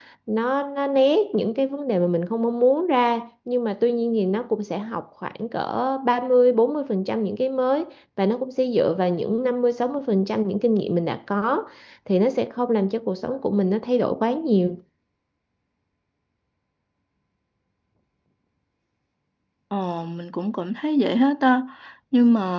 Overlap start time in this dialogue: none

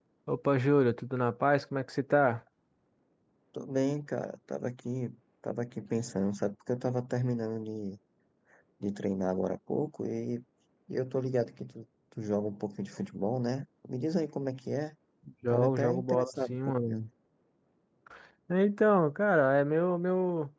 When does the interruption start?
15.5 s

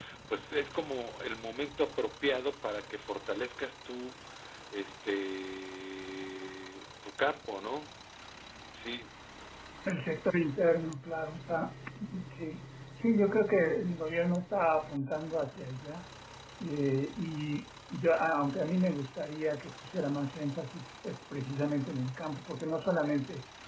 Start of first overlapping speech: none

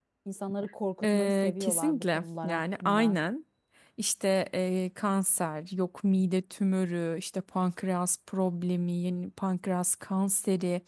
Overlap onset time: 1.0 s

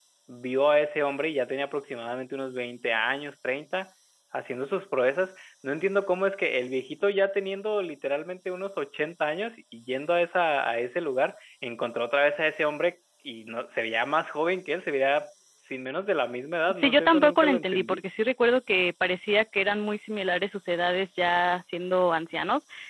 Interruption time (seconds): 16.6 s

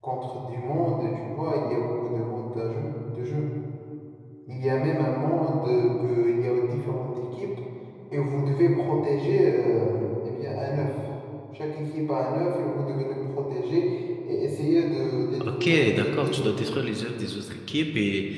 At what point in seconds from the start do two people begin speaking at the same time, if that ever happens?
15.4 s

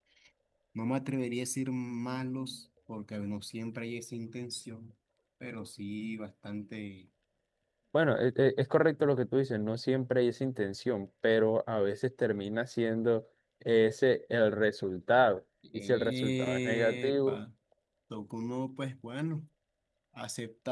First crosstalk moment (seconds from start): 15.6 s

